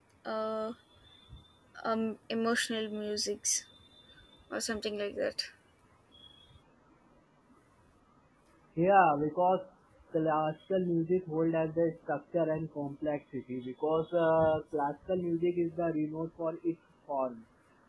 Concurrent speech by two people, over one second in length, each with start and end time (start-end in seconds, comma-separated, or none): none